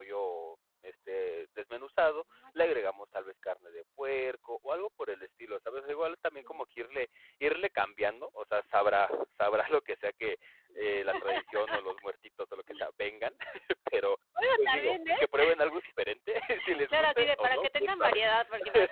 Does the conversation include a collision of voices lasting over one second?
Yes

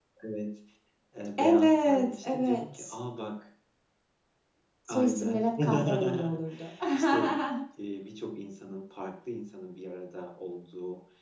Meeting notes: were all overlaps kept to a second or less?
No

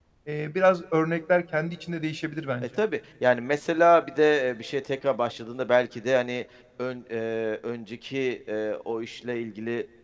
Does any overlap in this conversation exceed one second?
No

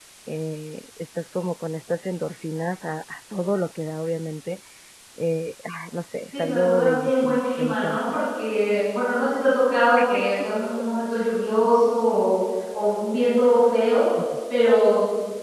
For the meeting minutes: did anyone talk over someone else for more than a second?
Yes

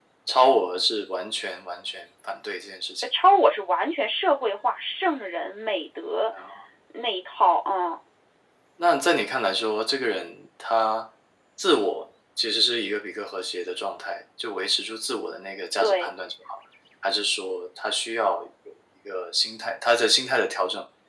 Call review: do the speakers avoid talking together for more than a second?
Yes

